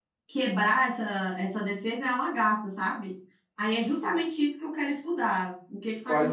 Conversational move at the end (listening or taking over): taking over